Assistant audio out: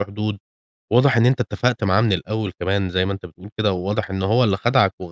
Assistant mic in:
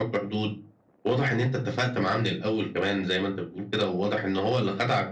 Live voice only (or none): none